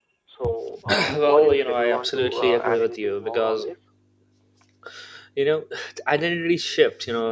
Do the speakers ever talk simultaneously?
Yes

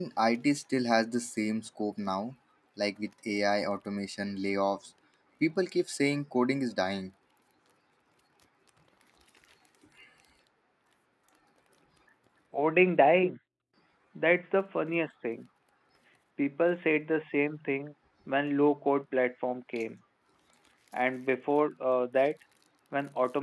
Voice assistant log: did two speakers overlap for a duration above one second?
No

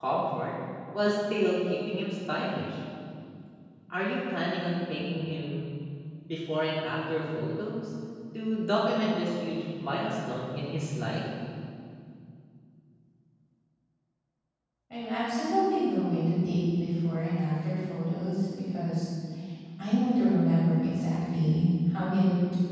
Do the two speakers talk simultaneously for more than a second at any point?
No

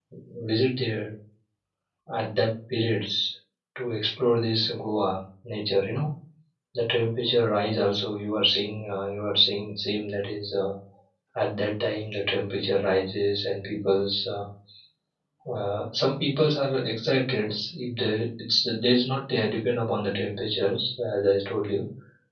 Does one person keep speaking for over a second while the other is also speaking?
No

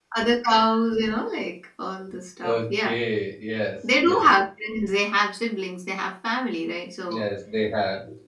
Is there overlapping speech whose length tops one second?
No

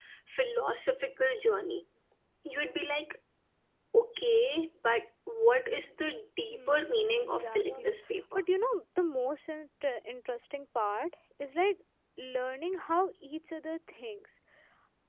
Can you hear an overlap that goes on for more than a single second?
Yes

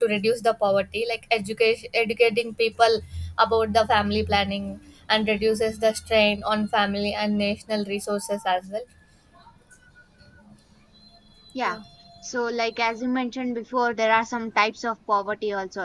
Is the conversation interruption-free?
Yes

